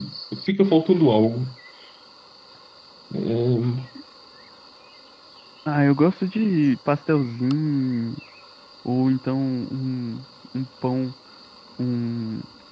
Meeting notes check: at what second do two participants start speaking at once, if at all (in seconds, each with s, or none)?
none